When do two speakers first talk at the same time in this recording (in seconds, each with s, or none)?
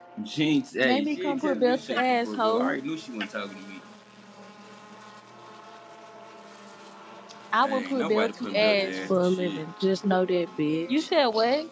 0.8 s